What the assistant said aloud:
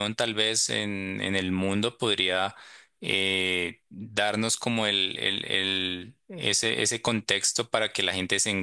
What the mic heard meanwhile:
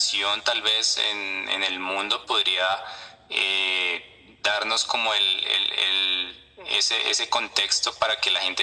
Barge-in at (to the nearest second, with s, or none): none